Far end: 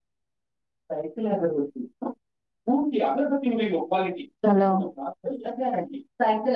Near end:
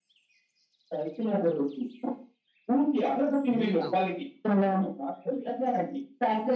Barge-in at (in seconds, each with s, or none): 3.5 s